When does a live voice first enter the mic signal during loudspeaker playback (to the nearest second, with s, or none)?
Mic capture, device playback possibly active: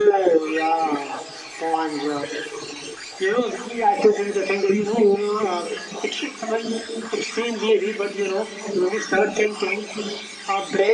none